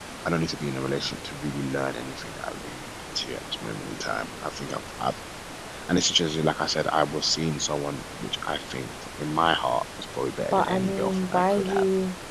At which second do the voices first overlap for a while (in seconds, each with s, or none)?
10.5 s